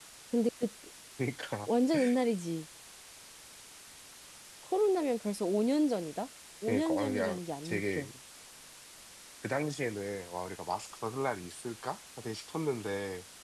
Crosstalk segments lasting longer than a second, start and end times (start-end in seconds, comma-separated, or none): 6.7-8.1